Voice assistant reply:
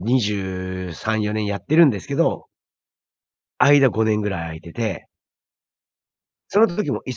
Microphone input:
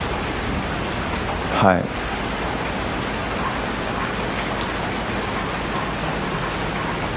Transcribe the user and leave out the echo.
はい。

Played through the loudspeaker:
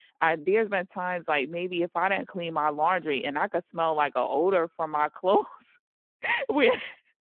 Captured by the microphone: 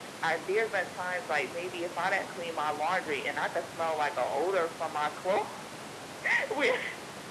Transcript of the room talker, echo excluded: none

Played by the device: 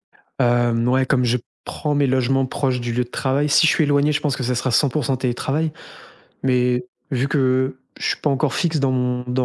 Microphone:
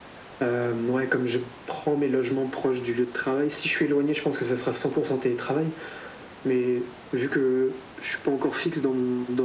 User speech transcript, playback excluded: none

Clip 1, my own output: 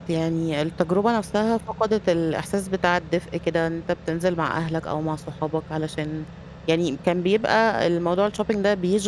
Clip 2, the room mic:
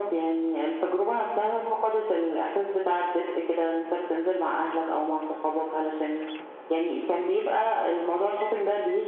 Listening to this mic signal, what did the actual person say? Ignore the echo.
none

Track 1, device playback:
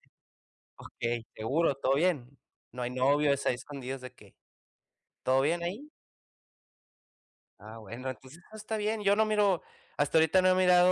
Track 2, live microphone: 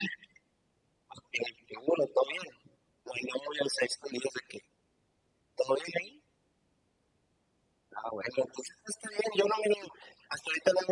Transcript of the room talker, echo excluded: none

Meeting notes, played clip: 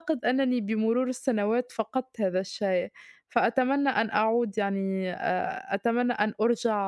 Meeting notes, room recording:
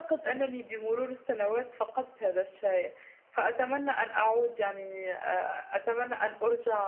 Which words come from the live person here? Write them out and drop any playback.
none

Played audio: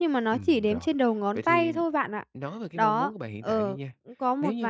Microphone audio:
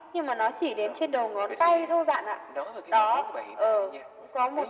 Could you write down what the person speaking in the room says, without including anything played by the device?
none

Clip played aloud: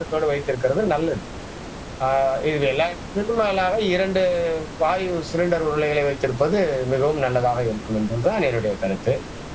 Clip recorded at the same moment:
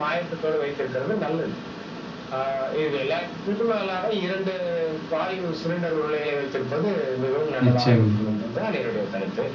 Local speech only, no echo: நிச்சயமா,

